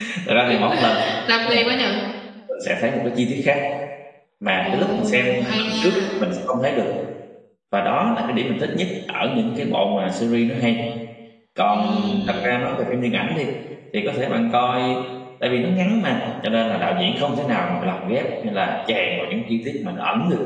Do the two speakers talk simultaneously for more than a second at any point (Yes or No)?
Yes